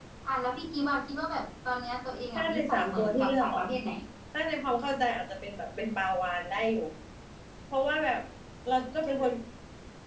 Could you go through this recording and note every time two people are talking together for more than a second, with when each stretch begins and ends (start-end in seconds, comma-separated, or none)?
2.4-3.7